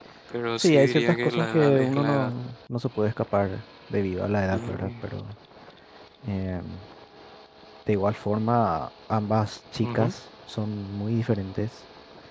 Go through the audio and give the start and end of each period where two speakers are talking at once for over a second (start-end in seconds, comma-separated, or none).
0.6-2.3